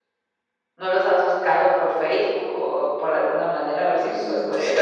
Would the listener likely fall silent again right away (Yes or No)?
No